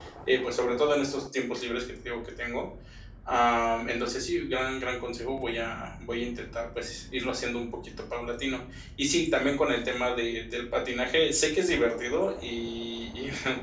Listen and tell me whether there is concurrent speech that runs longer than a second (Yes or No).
No